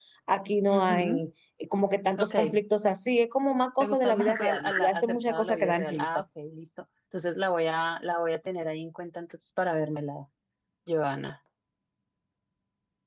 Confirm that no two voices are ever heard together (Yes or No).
No